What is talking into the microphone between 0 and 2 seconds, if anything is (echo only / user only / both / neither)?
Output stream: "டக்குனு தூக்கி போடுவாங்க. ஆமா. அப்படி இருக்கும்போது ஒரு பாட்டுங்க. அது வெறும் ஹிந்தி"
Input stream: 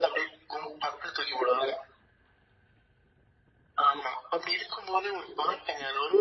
echo only